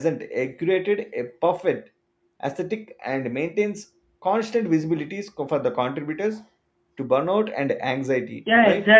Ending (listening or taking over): taking over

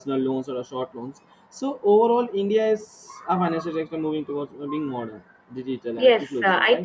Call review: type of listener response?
taking over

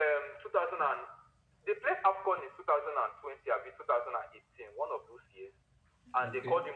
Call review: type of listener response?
listening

